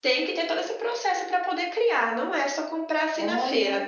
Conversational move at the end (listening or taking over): listening